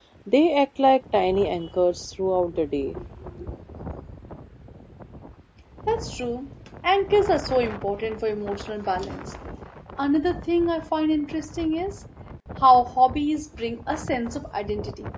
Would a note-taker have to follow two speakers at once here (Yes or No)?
No